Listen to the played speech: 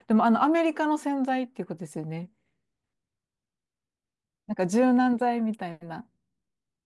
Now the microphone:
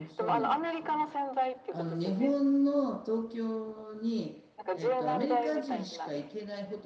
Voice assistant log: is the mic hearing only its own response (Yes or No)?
No